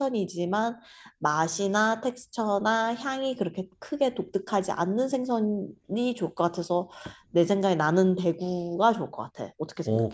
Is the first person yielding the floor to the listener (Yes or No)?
Yes